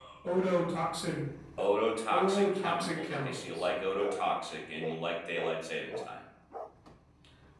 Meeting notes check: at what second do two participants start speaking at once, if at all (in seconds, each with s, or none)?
2.1 s